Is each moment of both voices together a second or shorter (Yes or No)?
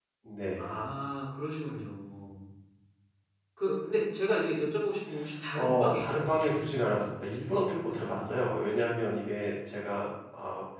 No